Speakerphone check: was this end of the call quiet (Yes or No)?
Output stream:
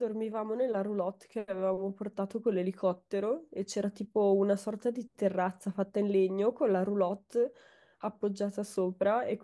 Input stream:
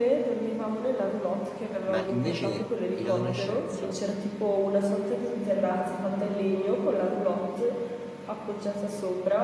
No